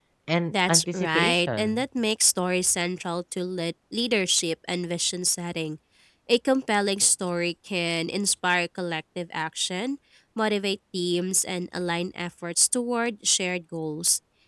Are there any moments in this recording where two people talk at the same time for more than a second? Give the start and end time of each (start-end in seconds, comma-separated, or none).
0.5-1.8